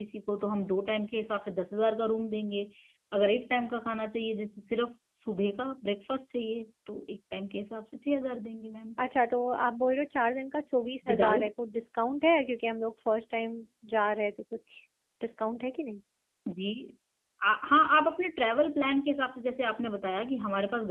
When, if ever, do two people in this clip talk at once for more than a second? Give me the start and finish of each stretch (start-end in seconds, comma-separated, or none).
none